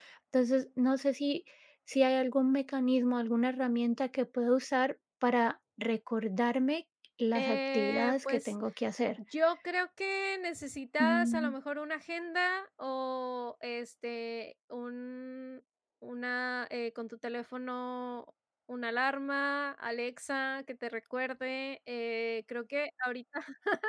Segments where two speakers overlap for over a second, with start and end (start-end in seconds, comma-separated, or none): 7.3-8.6